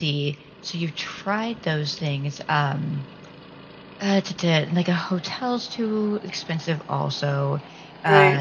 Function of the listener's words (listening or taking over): taking over